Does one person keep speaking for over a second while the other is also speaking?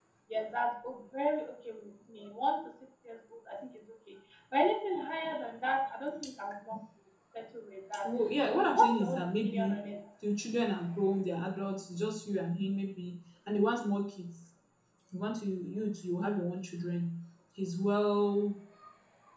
Yes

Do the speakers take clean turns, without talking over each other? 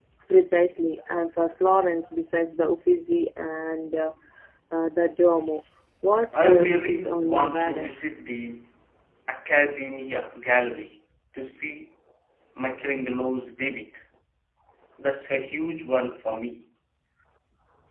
No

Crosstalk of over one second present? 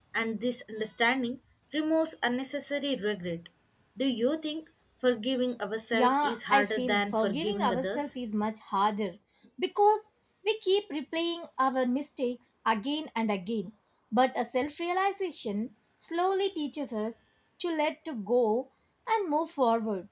Yes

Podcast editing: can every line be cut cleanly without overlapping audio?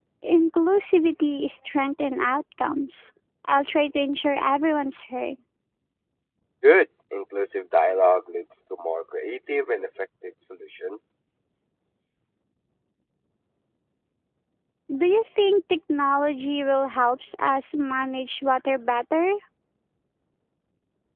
Yes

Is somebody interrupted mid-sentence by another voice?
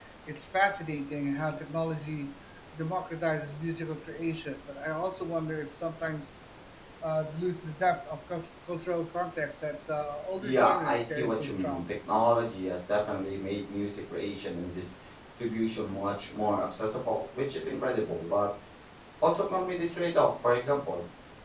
Yes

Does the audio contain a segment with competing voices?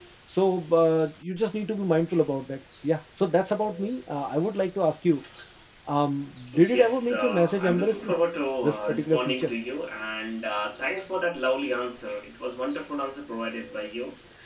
Yes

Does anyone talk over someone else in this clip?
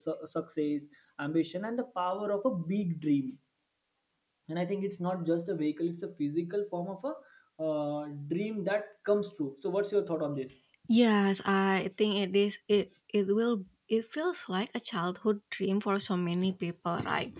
No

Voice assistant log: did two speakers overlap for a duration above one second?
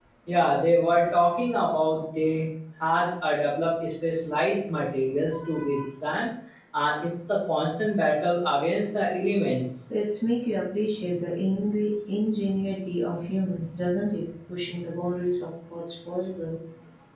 No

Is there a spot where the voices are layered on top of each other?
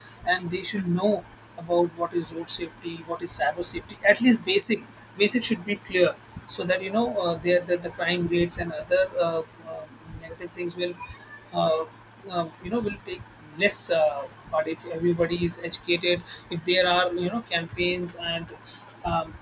No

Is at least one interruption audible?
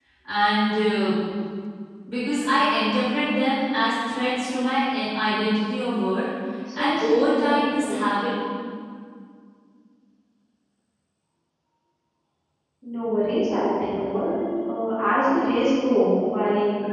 Yes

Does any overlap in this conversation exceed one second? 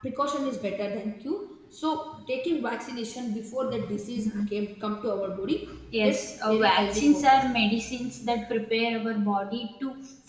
Yes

